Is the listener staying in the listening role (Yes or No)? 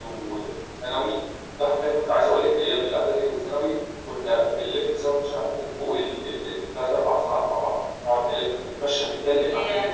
Yes